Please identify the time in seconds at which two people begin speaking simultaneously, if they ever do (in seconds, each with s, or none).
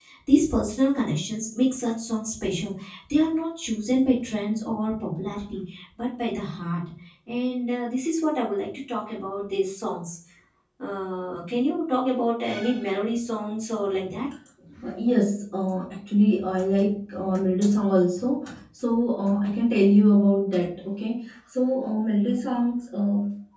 none